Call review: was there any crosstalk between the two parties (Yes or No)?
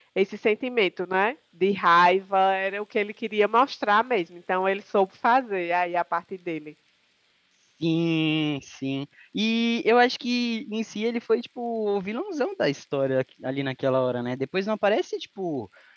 No